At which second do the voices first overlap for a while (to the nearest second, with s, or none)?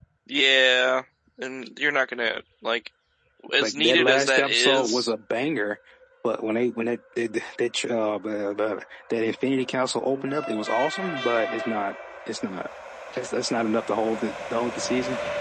4 s